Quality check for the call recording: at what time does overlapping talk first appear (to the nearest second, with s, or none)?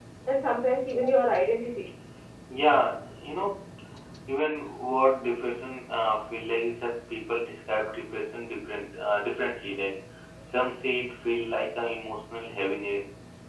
none